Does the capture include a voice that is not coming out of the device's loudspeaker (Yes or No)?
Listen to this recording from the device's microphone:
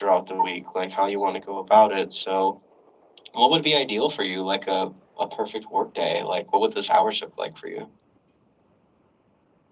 No